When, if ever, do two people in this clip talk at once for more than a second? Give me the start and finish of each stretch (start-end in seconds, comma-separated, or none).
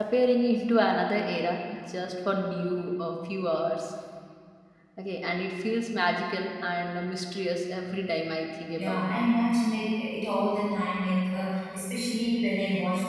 none